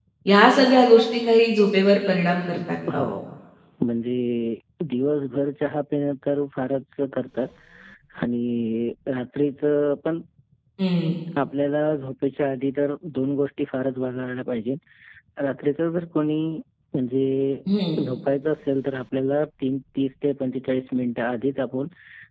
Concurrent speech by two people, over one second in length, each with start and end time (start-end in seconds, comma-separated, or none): none